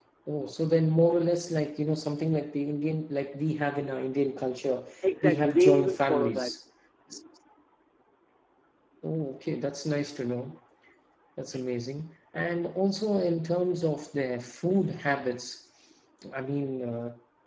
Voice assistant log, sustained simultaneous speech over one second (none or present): present